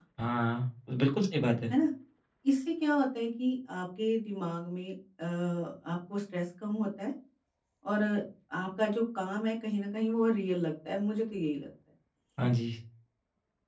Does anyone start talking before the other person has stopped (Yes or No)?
No